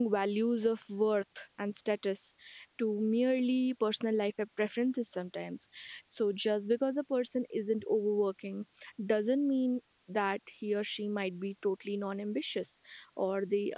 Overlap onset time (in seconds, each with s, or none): none